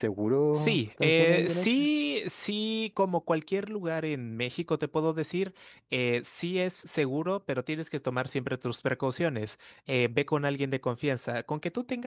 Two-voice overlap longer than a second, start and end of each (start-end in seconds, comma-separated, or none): 0.5-1.9